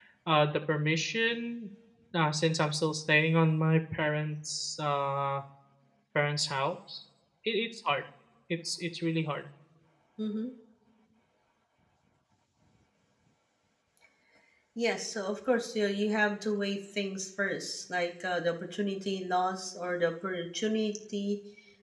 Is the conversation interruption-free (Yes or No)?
Yes